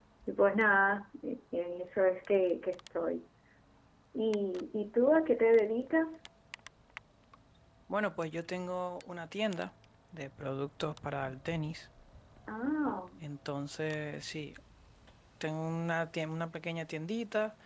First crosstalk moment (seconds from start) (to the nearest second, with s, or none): none